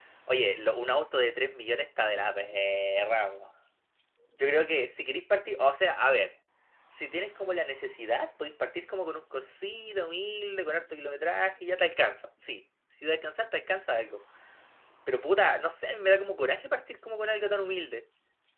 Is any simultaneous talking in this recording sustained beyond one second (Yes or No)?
No